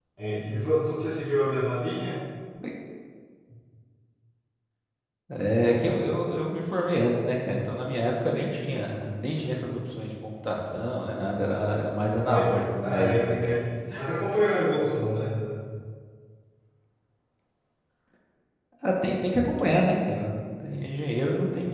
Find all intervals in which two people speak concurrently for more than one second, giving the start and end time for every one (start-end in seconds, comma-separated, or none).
12.1-13.5